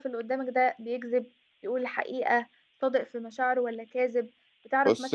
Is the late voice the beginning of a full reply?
No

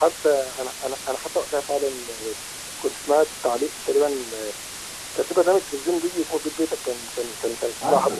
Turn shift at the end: No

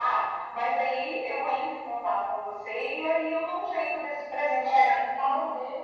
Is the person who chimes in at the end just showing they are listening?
No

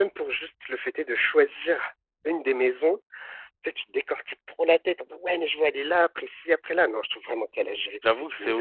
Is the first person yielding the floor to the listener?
Yes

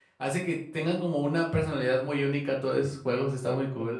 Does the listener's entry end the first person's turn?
Yes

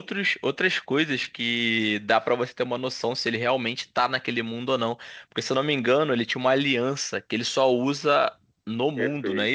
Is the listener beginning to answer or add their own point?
Yes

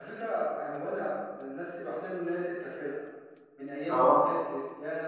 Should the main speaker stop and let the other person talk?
No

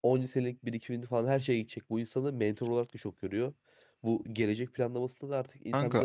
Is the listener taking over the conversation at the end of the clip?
No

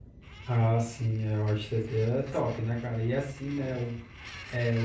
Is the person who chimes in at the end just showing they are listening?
Yes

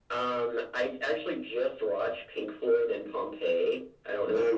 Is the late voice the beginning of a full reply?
No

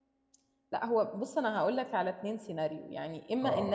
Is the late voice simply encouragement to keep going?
Yes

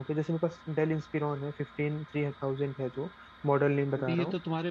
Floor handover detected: Yes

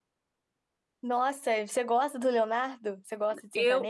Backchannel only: No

